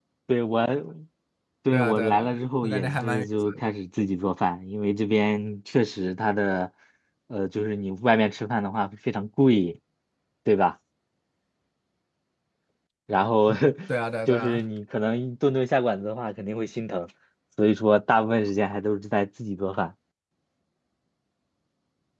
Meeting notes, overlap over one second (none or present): present